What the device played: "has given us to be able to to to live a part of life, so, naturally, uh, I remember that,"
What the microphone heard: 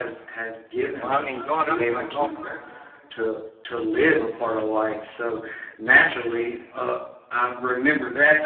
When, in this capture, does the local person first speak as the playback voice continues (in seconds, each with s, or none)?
1.0 s